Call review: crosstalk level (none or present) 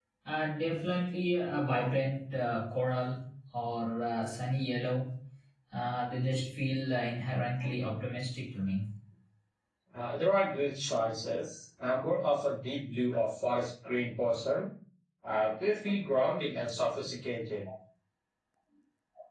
none